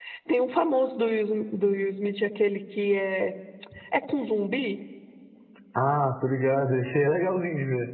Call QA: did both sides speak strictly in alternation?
Yes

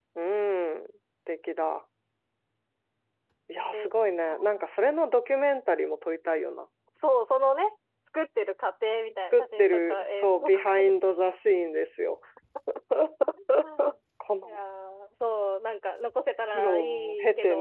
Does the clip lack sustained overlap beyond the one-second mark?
No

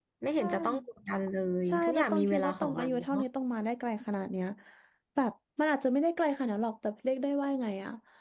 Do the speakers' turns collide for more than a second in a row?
Yes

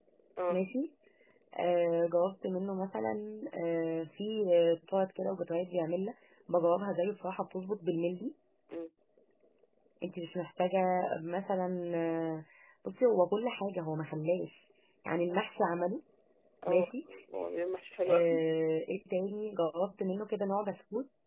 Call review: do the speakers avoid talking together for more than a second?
Yes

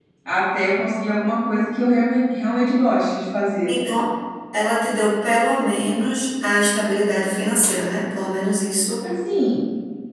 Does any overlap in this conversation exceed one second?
No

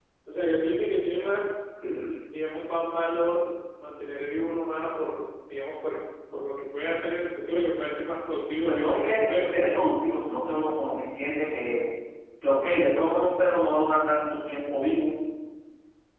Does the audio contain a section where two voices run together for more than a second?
Yes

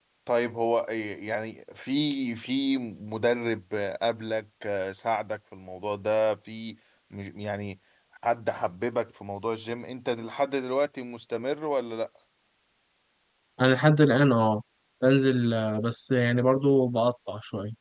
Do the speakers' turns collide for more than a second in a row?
No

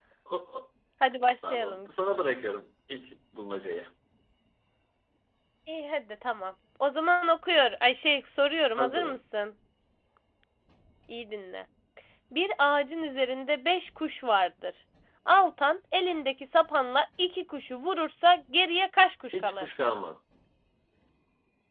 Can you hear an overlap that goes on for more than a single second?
No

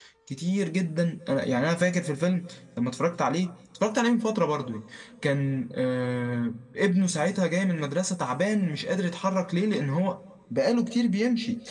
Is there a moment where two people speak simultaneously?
No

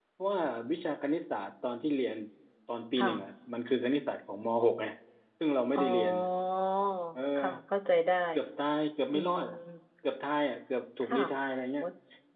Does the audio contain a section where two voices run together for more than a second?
No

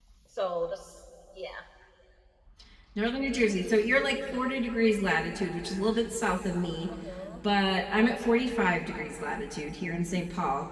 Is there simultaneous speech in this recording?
No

